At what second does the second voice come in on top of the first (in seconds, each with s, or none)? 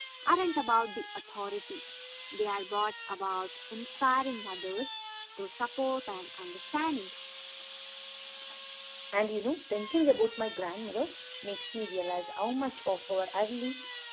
none